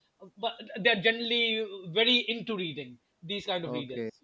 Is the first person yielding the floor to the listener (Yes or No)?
Yes